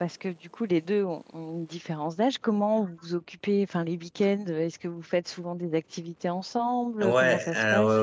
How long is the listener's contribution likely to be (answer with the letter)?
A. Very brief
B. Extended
B